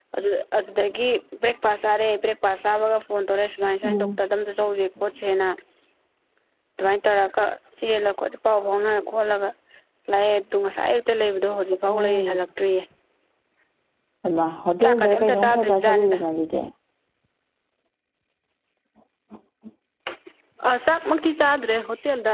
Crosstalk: present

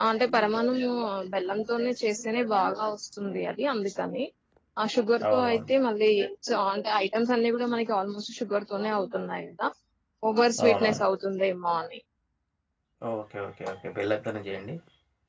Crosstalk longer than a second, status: none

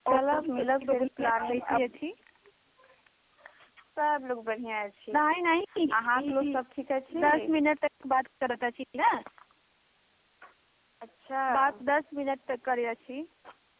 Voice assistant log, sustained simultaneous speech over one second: present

